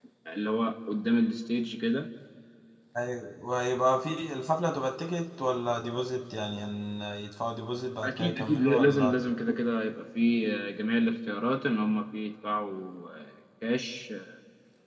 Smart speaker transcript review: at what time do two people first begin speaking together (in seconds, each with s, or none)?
8.0 s